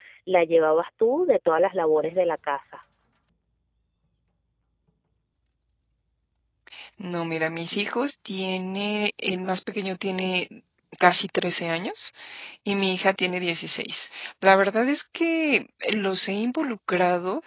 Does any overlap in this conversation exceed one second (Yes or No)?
No